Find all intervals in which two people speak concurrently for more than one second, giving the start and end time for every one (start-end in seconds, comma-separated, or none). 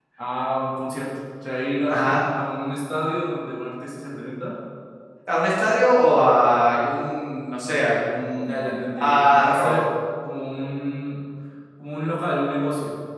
8.4-9.8